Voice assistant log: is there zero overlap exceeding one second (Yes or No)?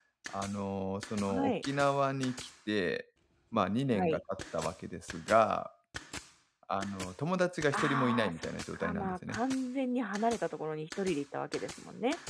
No